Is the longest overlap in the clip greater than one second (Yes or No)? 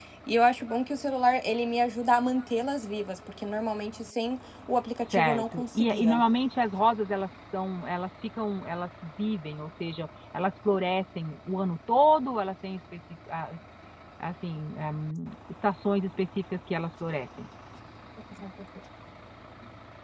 Yes